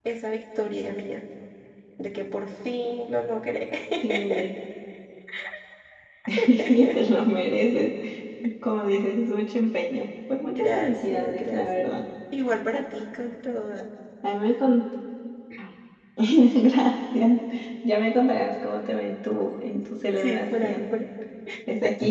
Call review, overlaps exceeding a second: present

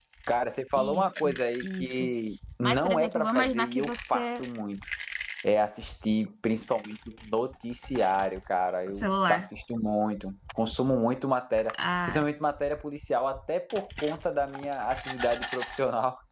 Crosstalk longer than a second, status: present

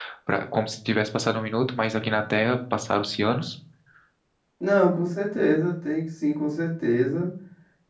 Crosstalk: none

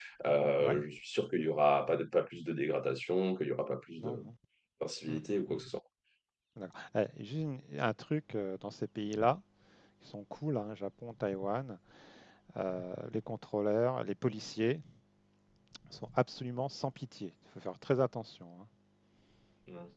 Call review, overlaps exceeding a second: none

